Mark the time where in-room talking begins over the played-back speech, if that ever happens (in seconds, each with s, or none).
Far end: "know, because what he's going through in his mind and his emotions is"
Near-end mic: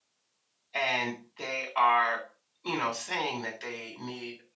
0.7 s